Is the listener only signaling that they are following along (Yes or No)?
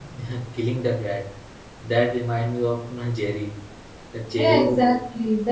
No